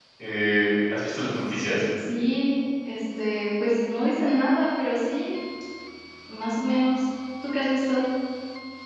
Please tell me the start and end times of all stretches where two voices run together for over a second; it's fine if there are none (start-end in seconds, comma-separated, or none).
none